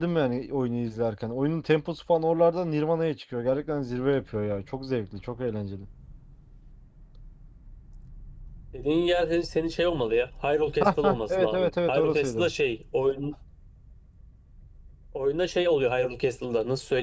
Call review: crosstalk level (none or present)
present